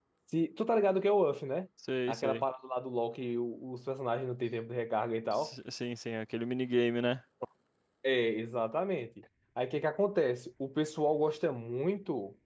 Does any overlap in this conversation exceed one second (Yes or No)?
No